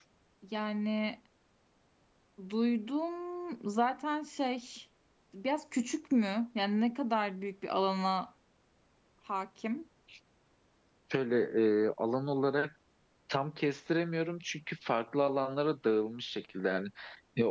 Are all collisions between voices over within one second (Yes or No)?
Yes